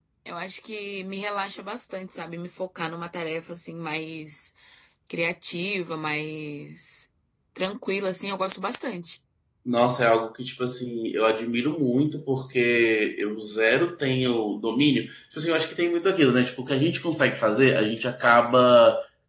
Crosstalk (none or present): none